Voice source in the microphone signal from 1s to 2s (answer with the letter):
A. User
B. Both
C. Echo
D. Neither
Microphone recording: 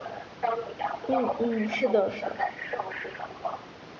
B